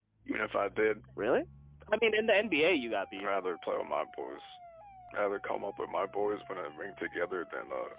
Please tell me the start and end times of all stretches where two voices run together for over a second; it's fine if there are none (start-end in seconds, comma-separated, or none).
none